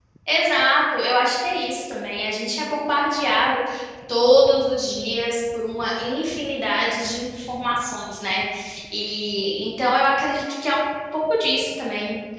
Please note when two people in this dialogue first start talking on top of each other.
none

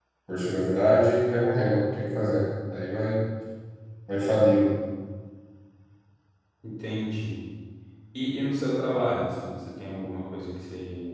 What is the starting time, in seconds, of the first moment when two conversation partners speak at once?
none

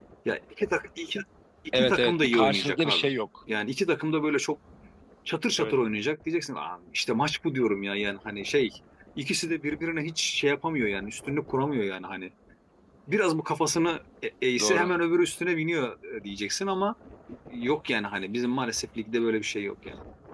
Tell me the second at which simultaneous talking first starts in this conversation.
1.7 s

